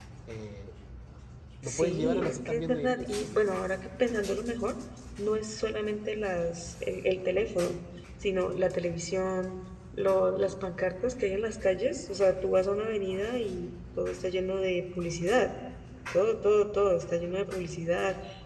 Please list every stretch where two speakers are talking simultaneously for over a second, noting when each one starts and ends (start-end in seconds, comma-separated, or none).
1.6-3.1